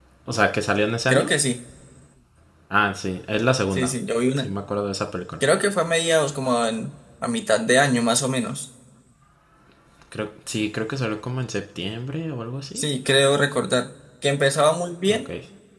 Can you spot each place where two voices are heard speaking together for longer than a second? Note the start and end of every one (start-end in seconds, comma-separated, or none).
none